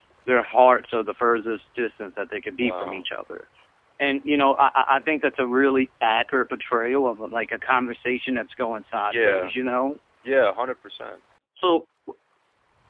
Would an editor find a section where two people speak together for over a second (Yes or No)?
No